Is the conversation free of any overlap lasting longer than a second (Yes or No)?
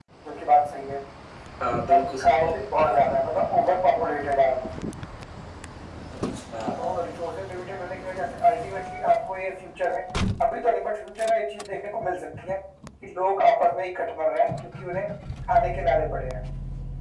No